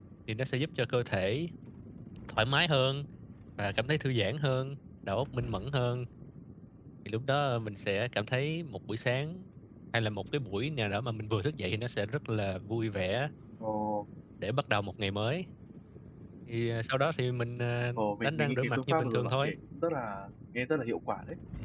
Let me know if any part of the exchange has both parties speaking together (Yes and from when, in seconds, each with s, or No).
Yes, from 18.0 s